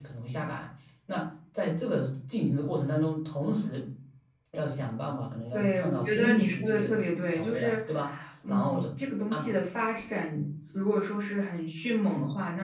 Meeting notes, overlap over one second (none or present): present